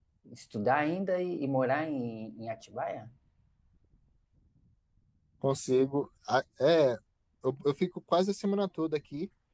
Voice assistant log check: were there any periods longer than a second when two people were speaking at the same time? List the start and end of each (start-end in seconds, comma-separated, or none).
none